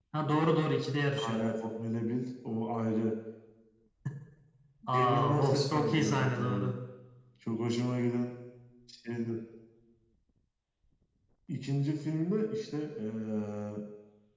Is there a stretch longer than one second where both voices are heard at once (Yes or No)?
Yes